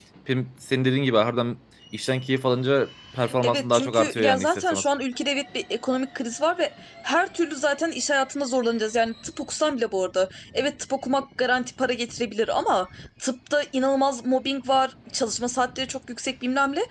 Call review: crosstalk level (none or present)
present